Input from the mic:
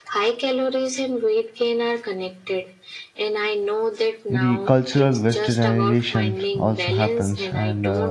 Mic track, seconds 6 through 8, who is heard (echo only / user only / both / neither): both